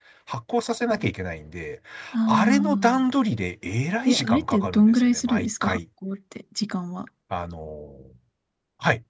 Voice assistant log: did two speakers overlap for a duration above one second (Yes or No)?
Yes